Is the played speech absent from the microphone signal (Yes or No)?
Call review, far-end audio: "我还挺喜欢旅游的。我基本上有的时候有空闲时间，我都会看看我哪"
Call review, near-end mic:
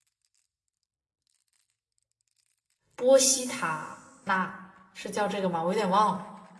Yes